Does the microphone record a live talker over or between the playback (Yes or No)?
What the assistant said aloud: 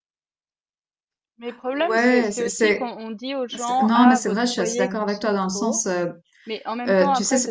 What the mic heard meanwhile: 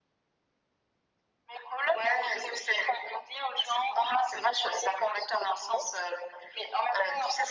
No